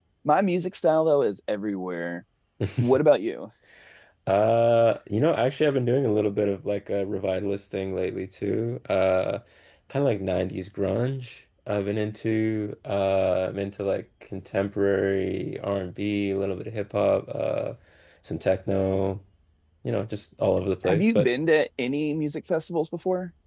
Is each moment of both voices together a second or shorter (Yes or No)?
Yes